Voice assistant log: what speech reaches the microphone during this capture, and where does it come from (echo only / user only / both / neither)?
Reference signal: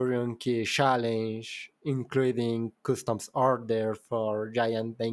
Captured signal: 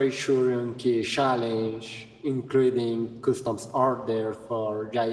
echo only